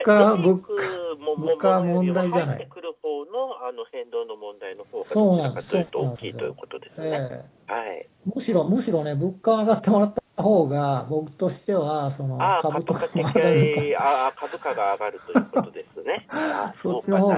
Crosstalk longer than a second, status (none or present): present